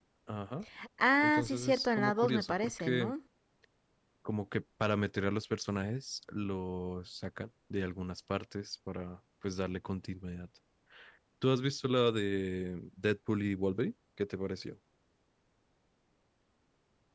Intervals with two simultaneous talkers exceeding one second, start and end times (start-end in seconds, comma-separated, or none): 1.2-3.1